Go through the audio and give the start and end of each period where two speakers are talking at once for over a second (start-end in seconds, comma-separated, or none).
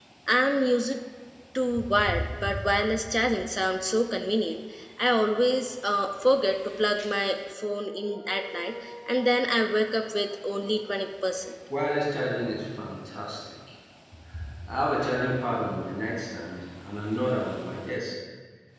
none